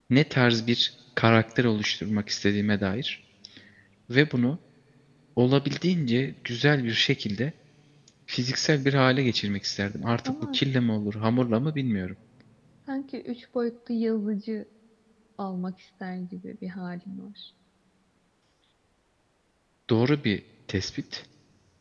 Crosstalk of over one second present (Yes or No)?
No